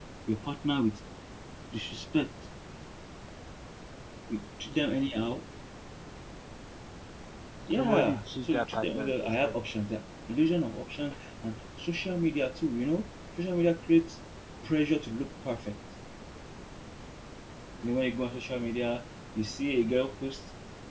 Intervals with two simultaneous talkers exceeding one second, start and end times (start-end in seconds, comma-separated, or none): 7.7-9.6